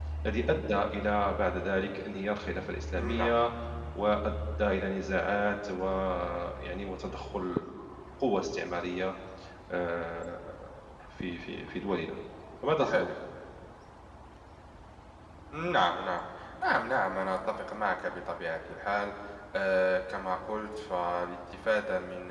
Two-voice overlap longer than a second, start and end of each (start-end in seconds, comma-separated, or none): none